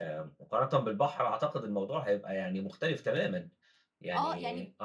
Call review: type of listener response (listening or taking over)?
taking over